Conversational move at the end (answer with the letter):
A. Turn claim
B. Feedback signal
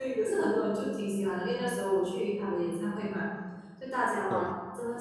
B